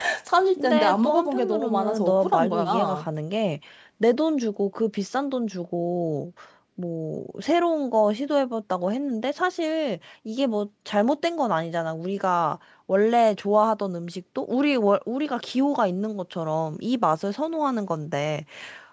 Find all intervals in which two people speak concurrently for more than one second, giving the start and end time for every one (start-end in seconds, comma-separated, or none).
0.6-3.0